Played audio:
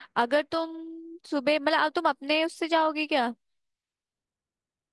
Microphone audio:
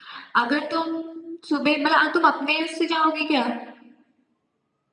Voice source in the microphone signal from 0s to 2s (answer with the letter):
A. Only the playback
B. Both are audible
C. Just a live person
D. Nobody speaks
A